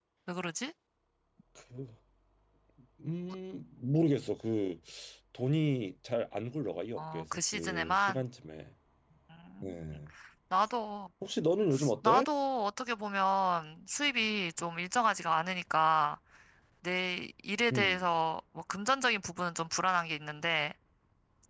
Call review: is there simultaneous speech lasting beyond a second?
Yes, from 7.0 s

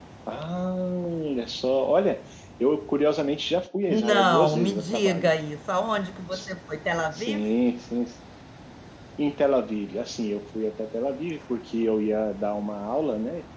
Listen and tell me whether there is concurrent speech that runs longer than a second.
Yes, from 3.9 s

